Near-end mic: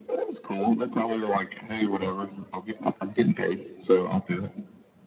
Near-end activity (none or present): none